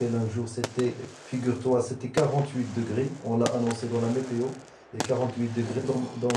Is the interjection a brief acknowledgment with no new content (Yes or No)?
Yes